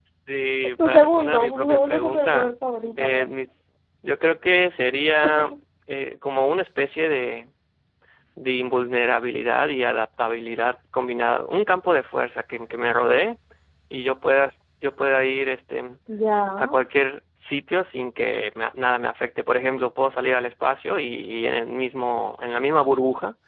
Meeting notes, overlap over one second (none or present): present